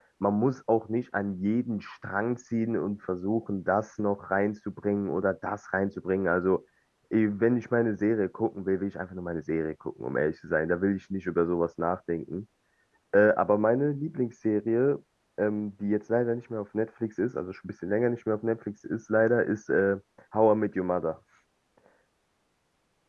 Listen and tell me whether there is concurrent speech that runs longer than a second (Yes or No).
No